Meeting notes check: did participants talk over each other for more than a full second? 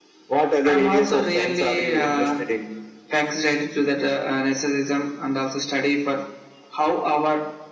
Yes, from 0.7 s

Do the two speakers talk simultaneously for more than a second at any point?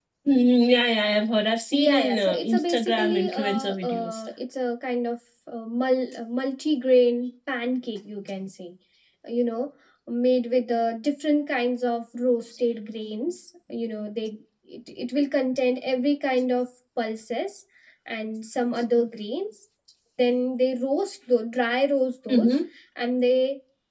Yes, from 1.7 s

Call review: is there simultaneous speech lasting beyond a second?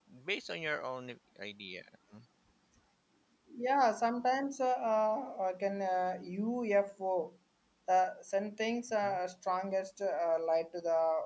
No

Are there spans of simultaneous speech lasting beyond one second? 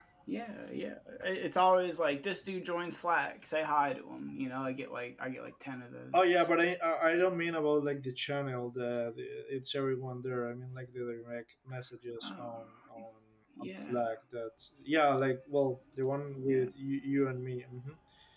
No

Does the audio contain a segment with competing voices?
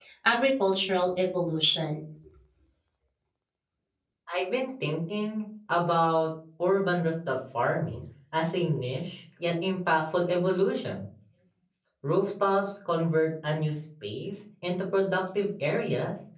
No

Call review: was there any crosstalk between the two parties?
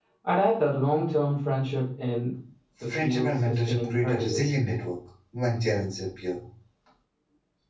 Yes, from 3.0 s

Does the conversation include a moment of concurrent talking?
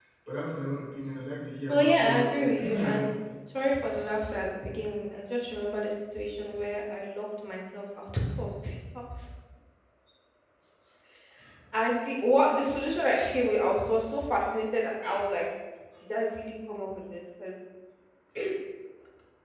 Yes, from 1.7 s

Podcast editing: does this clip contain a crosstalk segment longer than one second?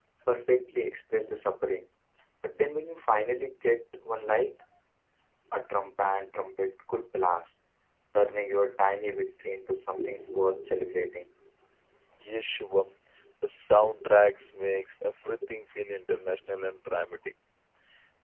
No

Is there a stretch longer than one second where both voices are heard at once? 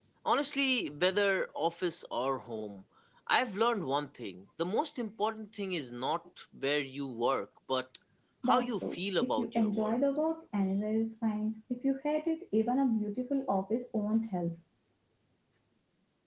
Yes, from 8.4 s

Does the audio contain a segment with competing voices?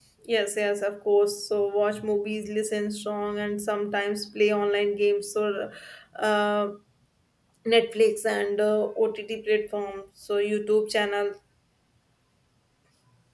No

